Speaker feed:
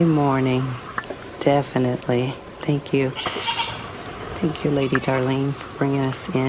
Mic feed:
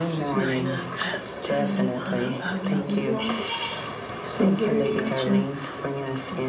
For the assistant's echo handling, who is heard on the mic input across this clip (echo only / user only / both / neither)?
both